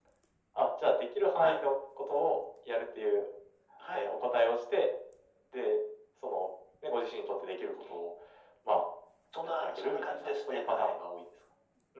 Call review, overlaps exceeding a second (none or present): present